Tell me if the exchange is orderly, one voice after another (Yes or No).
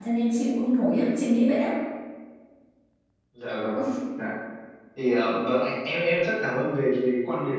Yes